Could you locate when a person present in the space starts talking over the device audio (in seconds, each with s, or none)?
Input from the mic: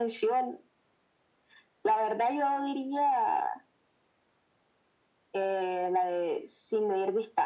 none